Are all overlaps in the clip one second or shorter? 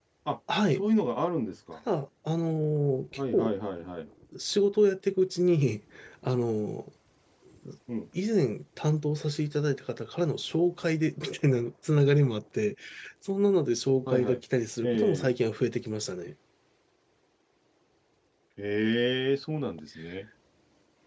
Yes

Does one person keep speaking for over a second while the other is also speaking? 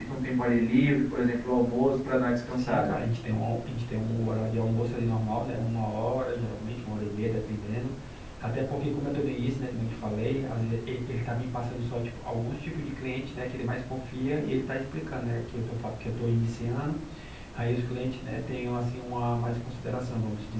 No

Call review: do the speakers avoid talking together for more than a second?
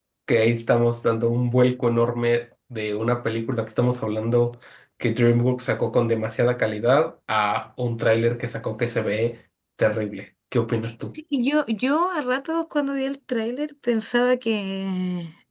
Yes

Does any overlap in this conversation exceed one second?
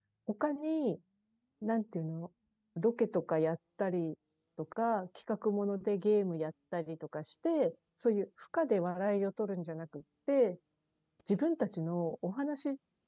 No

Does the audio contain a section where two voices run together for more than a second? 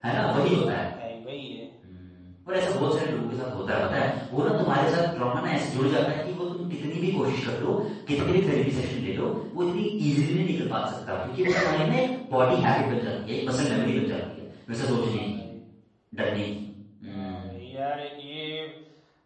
No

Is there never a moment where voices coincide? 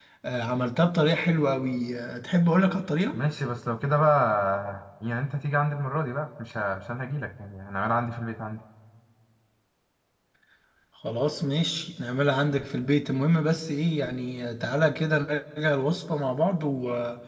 Yes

